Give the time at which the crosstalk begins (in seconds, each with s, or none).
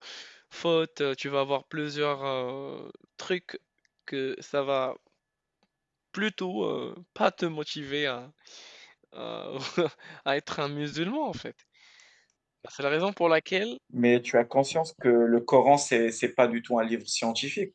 none